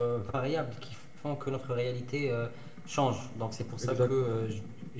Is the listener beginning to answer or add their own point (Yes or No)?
No